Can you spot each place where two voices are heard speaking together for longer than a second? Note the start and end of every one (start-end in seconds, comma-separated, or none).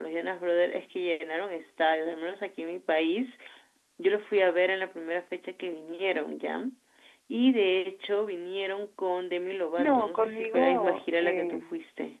9.8-11.6